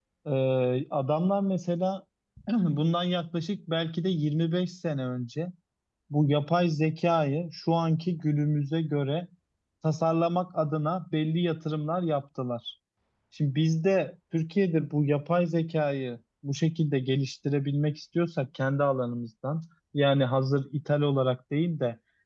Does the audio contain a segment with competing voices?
No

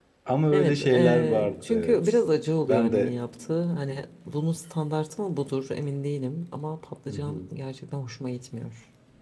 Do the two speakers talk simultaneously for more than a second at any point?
Yes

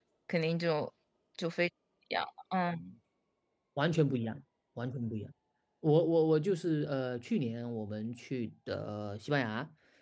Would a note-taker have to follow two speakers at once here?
No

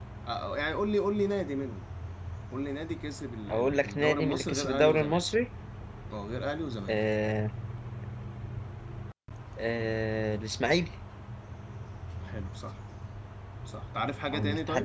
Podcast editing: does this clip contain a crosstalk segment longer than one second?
Yes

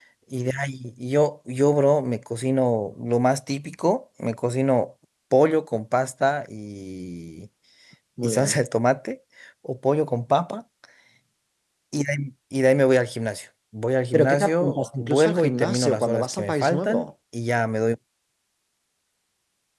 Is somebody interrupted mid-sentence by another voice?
Yes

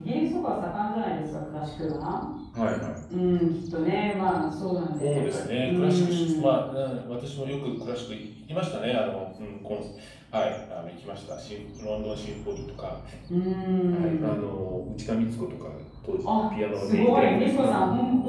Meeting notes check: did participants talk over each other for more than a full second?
Yes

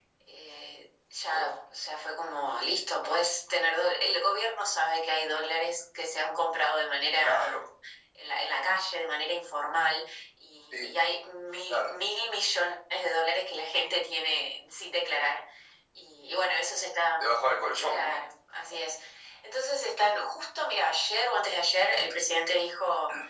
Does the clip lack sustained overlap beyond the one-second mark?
Yes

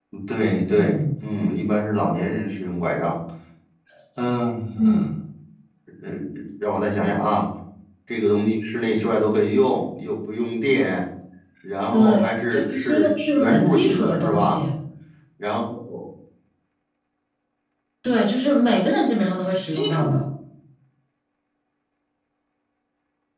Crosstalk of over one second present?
Yes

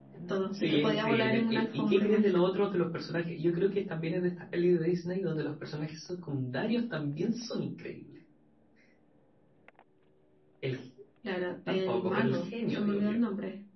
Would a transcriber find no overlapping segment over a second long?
No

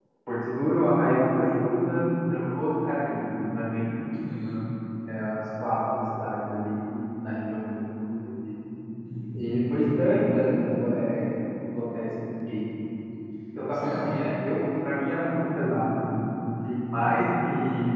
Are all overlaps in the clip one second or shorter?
Yes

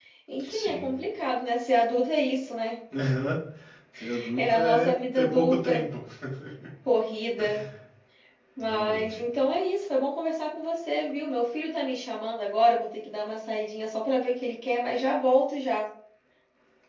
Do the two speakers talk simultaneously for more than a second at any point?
Yes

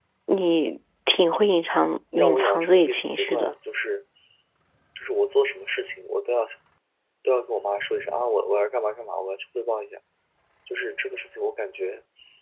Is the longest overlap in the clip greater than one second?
Yes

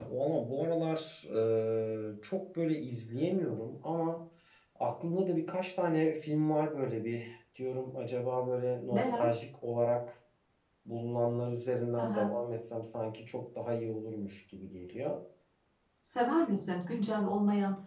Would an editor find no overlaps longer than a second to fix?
Yes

